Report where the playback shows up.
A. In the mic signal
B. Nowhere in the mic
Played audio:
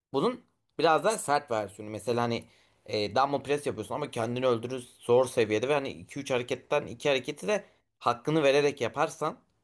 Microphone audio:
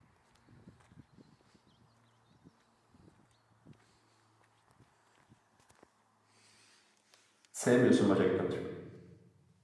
B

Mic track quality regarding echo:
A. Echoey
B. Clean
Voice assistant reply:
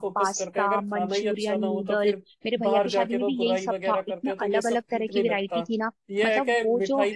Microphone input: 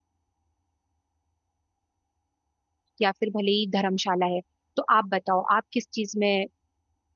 B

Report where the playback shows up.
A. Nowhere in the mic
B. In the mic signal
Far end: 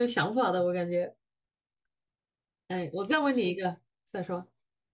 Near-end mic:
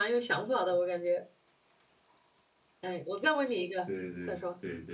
B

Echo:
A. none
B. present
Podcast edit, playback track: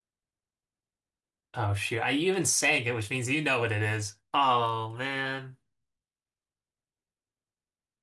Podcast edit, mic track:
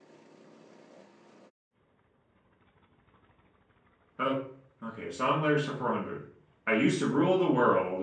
A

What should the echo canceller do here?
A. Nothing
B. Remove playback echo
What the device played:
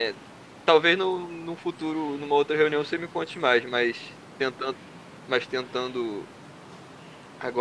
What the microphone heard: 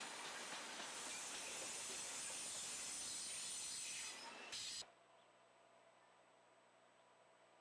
A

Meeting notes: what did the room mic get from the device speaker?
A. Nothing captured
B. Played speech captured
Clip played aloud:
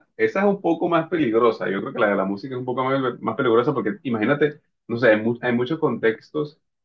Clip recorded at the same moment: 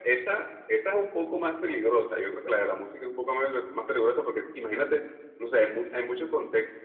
B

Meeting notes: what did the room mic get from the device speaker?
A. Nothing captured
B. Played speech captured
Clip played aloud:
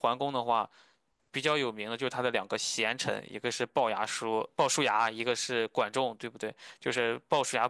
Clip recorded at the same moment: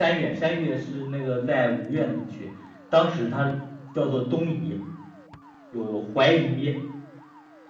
A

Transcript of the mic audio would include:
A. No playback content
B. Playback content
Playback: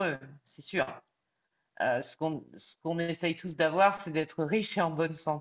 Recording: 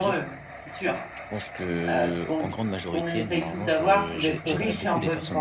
B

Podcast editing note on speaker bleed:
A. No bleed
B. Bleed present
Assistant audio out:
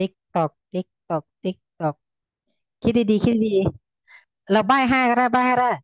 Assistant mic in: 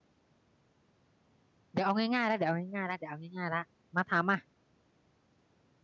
A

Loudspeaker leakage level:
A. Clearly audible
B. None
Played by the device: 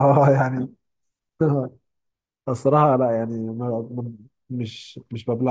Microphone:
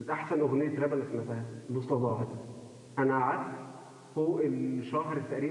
B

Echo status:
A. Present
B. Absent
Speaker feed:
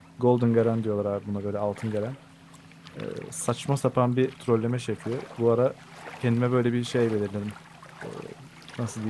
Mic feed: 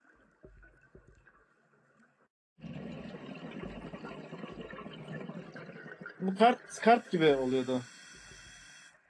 B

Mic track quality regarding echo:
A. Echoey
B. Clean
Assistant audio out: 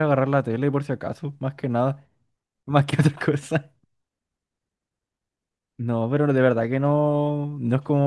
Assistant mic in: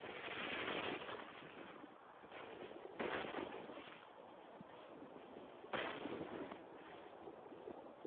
B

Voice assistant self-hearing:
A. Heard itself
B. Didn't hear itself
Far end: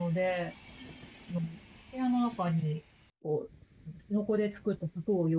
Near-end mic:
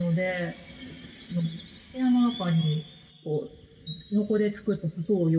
A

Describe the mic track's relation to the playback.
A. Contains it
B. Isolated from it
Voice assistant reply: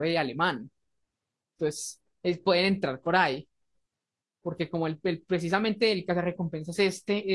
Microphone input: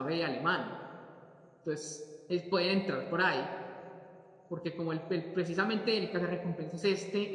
A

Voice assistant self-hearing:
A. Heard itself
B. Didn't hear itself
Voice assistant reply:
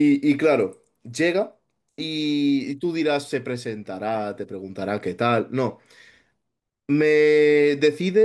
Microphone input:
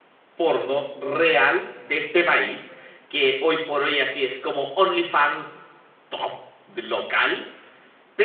B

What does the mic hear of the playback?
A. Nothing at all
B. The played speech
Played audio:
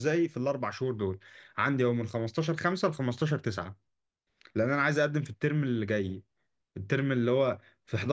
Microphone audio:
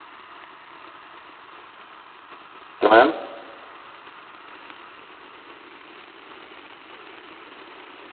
A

